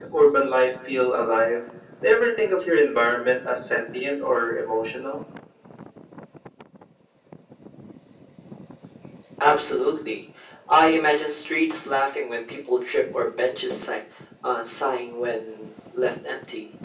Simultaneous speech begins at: none

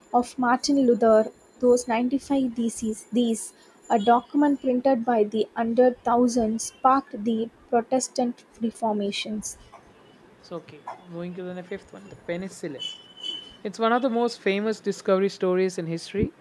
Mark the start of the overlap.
none

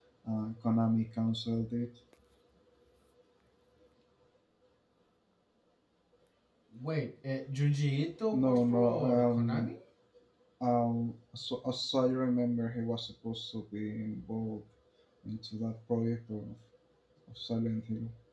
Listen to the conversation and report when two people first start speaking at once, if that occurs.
8.3 s

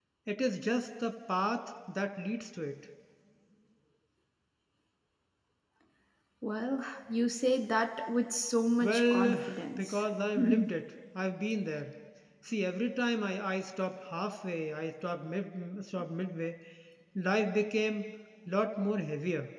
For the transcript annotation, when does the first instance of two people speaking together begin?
8.8 s

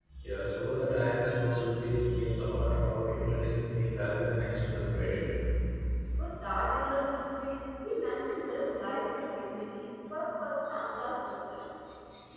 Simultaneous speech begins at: none

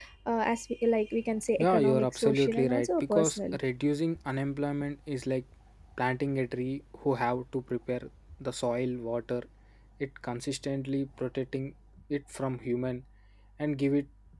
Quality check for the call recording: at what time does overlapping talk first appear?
1.6 s

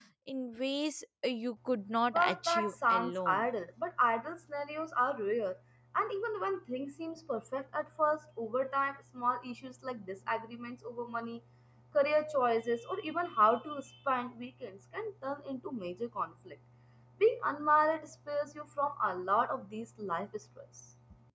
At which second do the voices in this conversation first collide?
2.1 s

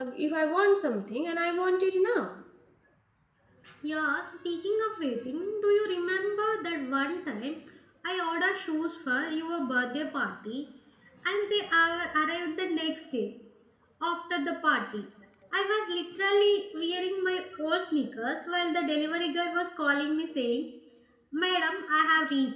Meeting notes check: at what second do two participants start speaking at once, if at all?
none

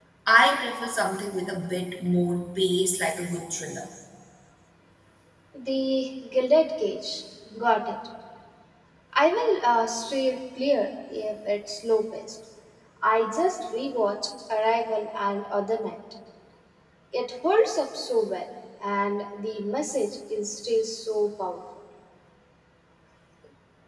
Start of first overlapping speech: none

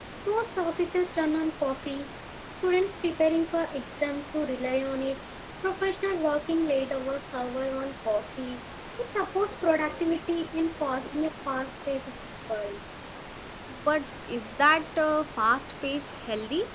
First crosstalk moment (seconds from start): none

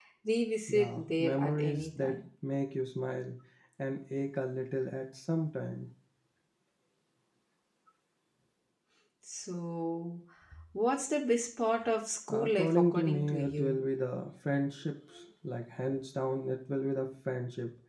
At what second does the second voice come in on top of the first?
0.7 s

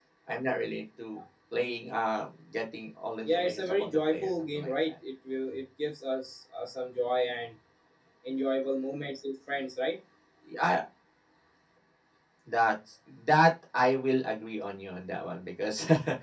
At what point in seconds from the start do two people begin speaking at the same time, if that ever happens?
3.3 s

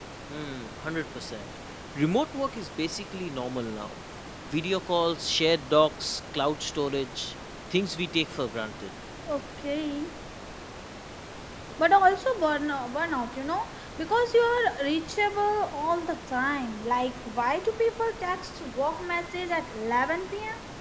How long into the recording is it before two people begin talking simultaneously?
none

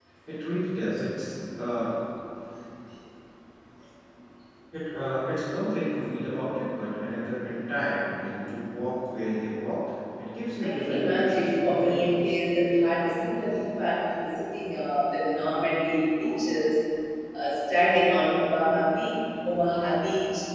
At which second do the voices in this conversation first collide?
10.6 s

